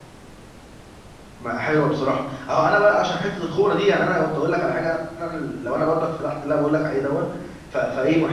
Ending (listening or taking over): listening